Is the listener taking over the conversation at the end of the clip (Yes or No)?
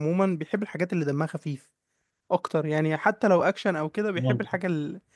No